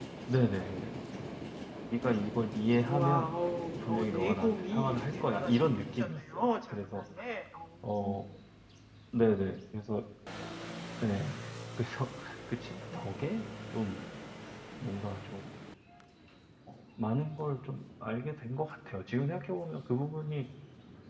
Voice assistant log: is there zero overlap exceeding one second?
No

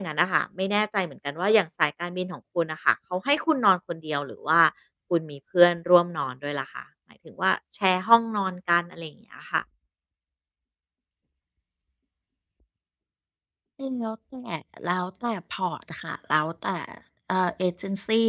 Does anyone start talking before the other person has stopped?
No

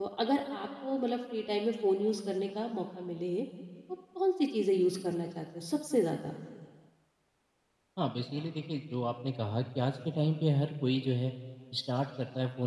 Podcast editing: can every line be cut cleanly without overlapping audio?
Yes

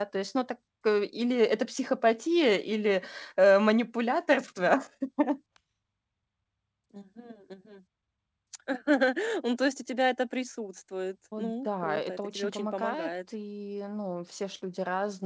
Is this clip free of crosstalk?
No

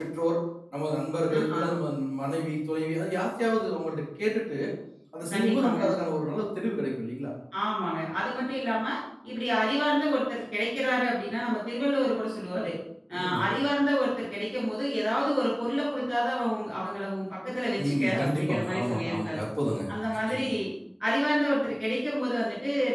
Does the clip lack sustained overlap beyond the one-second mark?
No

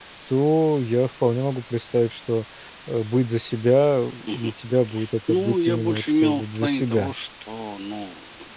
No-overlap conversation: No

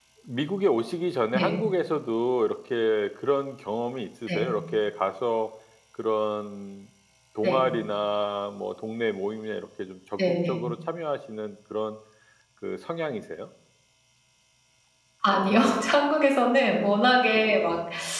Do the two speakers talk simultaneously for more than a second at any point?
No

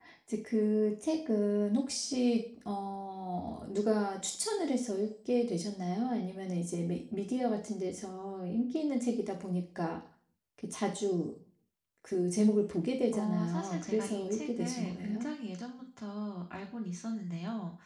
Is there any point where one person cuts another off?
Yes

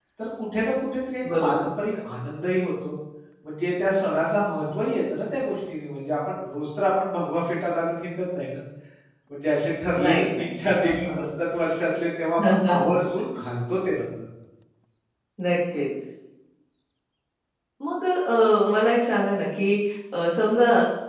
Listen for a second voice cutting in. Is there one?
Yes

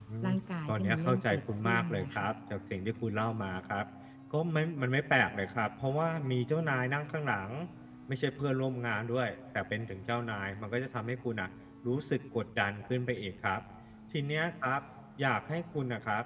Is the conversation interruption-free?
No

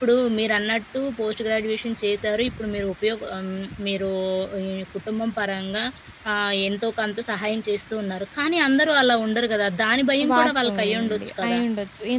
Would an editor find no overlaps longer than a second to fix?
No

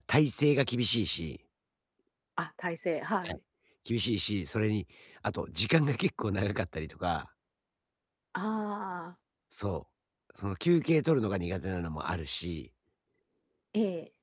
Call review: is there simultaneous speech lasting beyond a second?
No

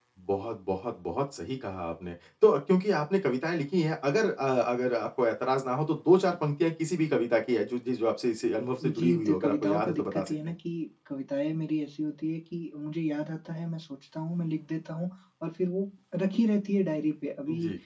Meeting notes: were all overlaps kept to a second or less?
No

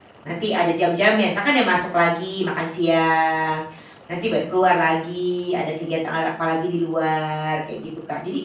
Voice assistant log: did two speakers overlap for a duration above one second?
No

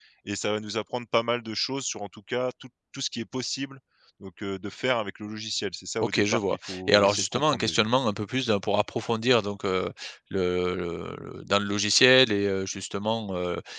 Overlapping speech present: Yes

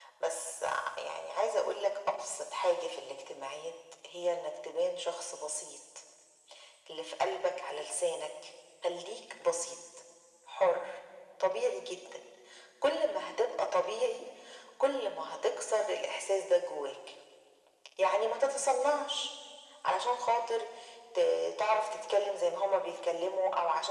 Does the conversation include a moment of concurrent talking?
No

